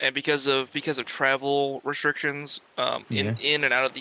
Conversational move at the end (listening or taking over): listening